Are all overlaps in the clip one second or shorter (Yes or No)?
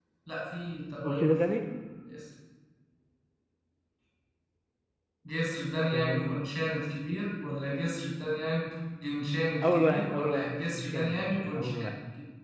No